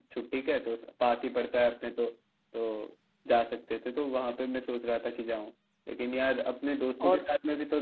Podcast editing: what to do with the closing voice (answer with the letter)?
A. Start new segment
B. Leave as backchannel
B